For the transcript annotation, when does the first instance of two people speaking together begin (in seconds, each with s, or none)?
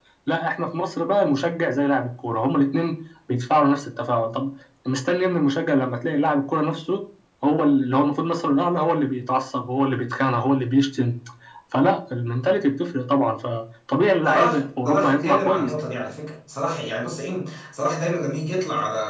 14.2 s